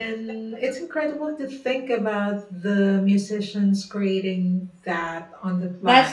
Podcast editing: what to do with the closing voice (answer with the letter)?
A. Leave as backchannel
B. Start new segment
B